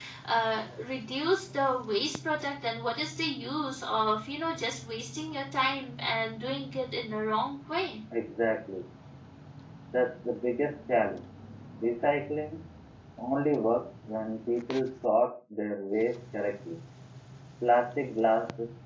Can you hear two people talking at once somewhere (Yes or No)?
No